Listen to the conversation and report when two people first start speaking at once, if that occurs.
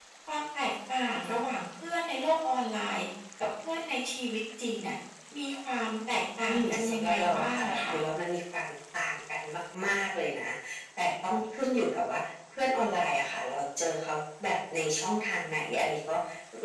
6.5 s

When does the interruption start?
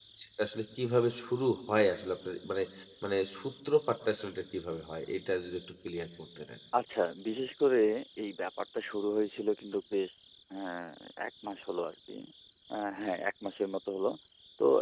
none

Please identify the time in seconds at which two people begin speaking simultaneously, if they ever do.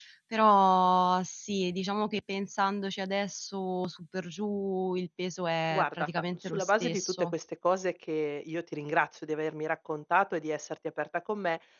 5.7 s

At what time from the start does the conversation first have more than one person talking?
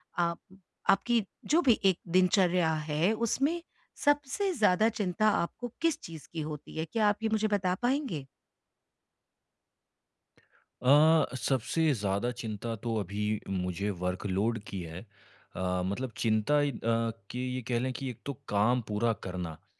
none

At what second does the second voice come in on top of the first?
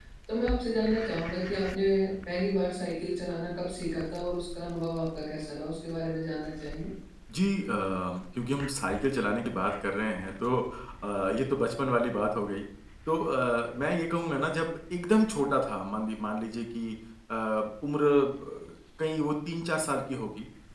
none

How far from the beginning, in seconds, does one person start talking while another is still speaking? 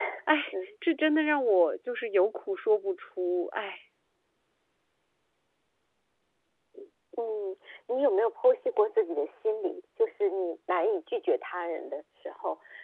none

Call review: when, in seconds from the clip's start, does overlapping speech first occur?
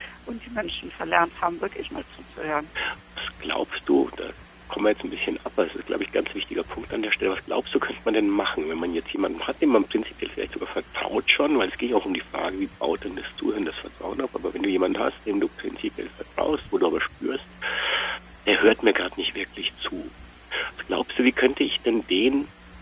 none

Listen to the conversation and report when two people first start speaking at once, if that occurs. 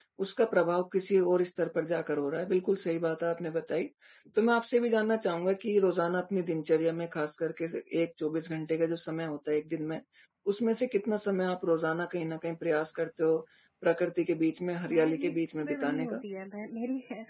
14.9 s

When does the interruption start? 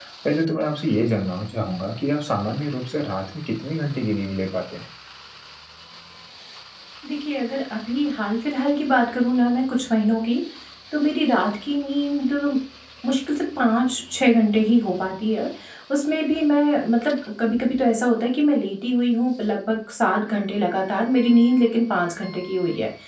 none

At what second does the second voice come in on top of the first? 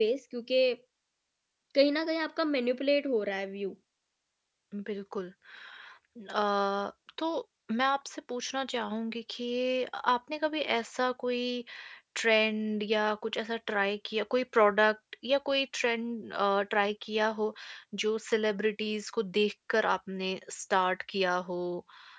none

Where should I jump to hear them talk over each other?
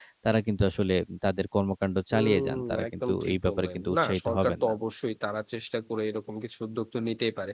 2.1 s

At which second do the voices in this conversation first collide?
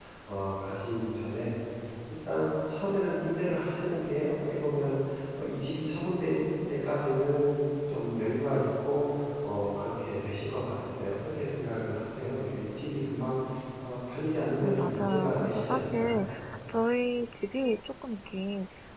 14.6 s

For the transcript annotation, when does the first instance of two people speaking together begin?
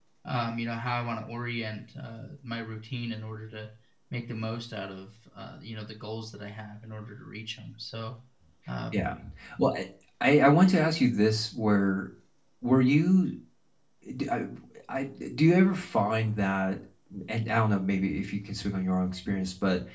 none

